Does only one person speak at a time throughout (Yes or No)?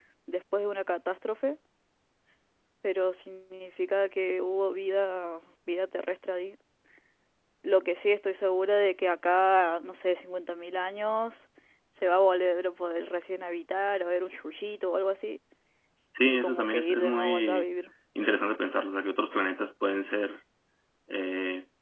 No